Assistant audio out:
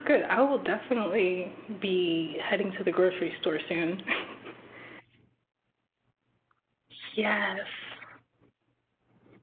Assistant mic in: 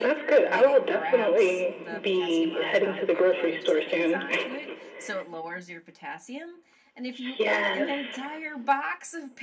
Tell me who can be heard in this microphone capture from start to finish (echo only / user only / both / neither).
both